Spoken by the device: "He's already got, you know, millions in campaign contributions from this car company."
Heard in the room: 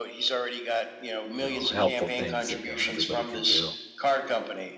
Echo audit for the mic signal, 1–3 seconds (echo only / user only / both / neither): both